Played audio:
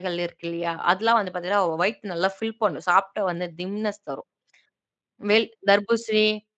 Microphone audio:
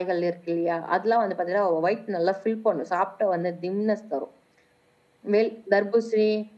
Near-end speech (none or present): none